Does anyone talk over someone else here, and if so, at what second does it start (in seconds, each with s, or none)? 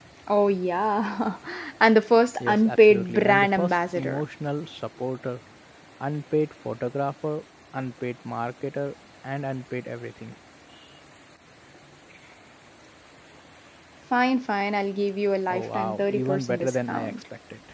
2.4 s